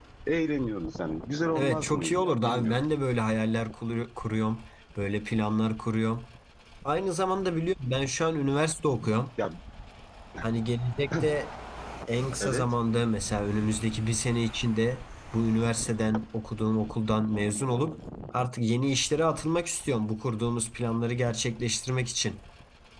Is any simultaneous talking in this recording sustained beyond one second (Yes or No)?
Yes